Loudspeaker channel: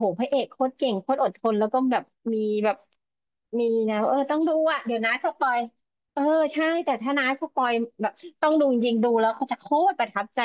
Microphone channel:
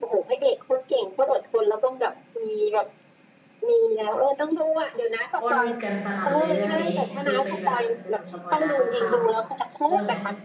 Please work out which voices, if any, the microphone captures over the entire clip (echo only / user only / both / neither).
both